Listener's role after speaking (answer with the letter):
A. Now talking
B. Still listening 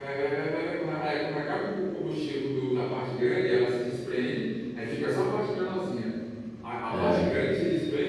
B